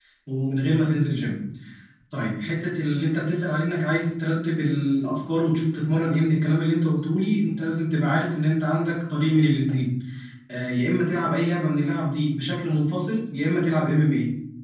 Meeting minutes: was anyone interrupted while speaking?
No

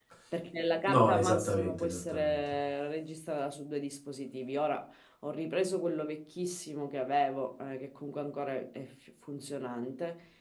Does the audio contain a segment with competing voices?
Yes, from 0.9 s

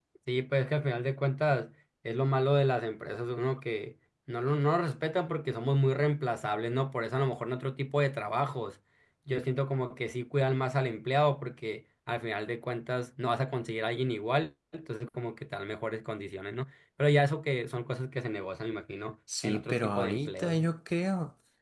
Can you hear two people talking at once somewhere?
Yes, from 19.3 s

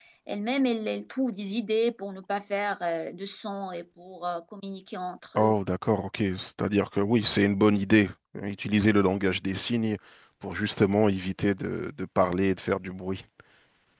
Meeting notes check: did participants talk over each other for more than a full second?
No

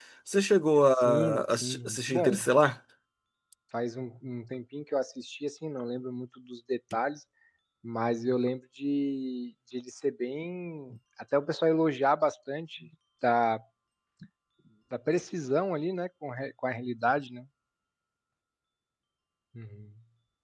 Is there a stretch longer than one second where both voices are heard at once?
Yes, from 1.1 s

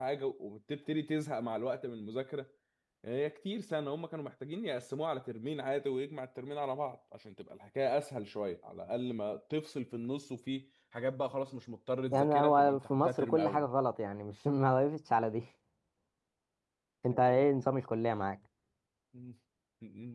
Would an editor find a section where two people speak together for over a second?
Yes, from 12.1 s

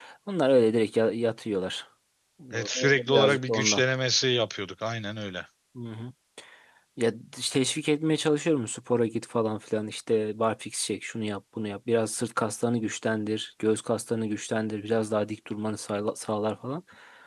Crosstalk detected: Yes, from 2.5 s

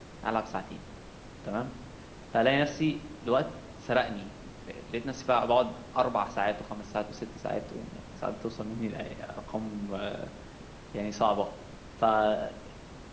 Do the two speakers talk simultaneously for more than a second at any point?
No

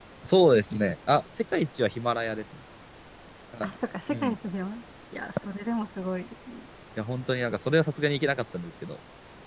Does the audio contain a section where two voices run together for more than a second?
No

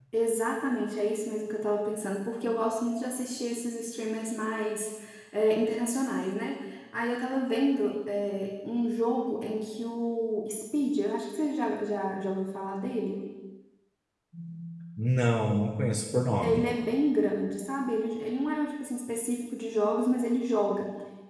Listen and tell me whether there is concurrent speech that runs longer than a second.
No

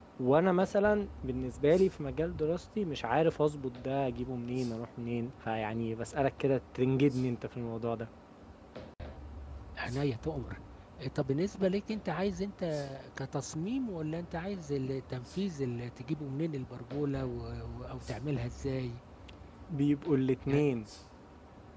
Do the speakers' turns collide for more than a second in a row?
No

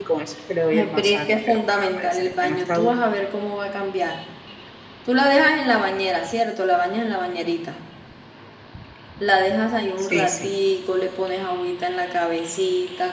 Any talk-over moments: Yes, from 0.7 s

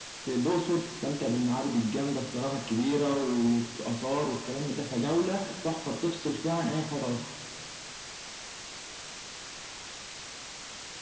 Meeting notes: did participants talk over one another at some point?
No

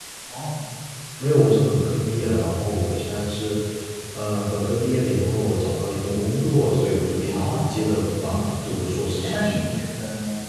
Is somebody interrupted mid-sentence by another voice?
Yes, from 7.2 s

